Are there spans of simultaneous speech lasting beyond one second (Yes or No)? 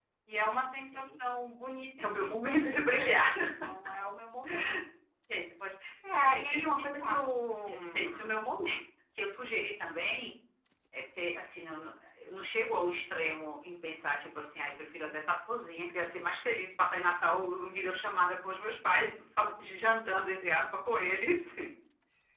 Yes